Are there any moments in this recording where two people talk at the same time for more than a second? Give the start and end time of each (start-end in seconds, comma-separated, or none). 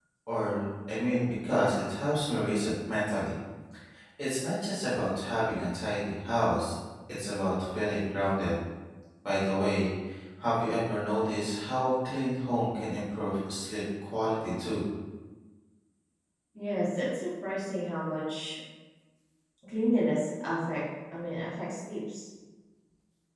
none